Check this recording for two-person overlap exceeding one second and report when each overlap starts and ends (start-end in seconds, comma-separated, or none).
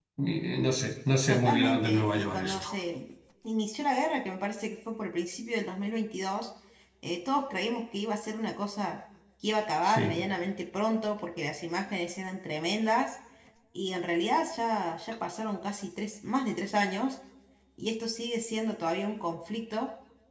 1.3-2.7